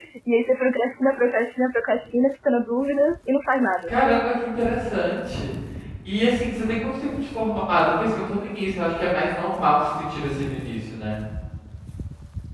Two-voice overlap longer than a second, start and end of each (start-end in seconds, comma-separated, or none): none